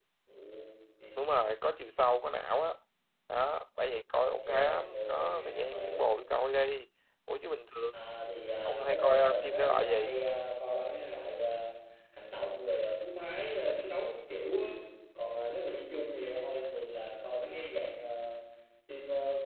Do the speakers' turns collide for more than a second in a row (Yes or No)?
Yes